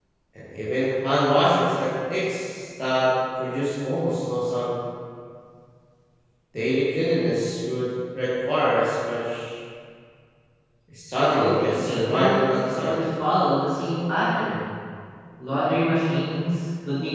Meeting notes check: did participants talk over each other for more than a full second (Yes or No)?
Yes